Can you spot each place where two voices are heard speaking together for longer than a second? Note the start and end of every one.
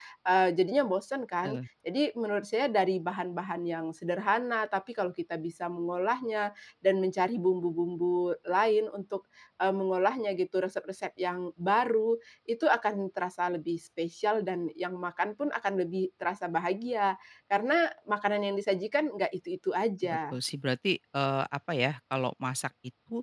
none

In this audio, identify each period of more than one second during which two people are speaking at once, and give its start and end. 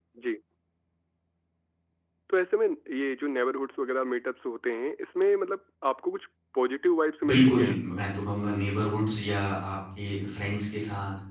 none

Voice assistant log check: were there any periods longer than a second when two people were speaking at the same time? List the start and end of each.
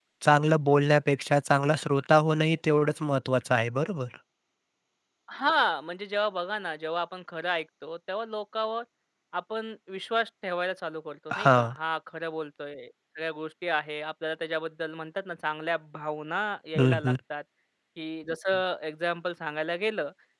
none

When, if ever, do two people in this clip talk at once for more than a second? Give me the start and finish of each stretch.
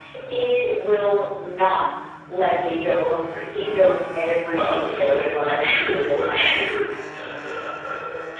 4.4-6.5

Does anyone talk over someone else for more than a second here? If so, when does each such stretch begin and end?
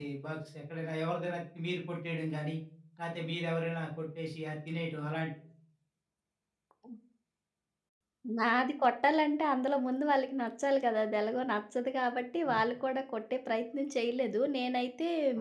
none

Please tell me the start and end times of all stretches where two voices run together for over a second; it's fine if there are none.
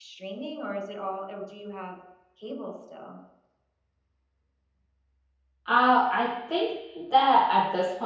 none

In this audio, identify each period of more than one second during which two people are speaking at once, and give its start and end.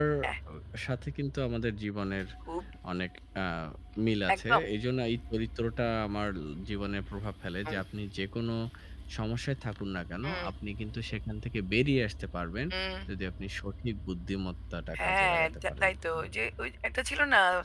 15.0-16.3

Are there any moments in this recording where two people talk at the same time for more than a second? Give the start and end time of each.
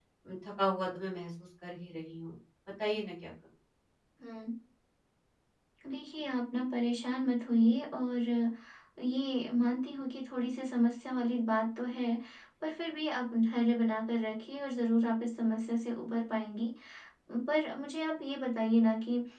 none

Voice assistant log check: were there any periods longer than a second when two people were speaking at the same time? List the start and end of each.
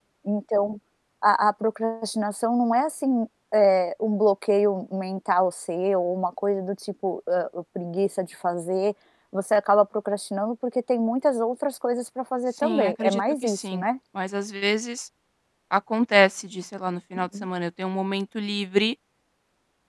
12.6-13.8

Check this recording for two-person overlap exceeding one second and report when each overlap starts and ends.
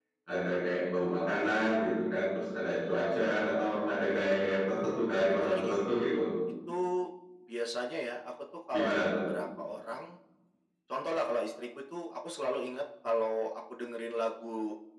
none

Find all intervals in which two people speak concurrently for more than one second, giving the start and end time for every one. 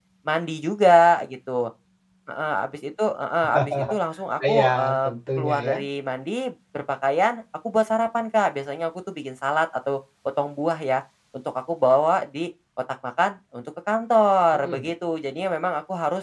4.5-5.8

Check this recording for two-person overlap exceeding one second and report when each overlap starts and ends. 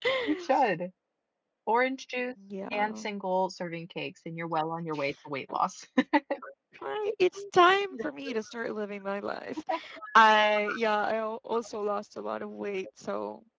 none

